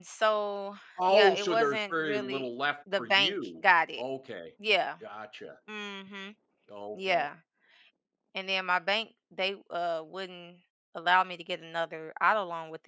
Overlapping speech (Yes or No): Yes